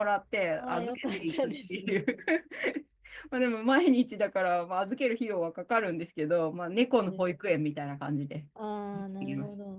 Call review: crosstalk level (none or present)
present